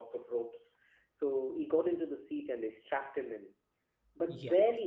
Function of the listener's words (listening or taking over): listening